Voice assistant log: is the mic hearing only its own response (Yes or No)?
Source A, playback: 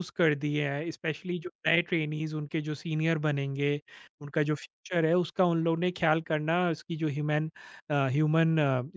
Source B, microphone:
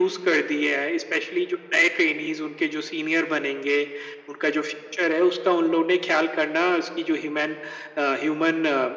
Yes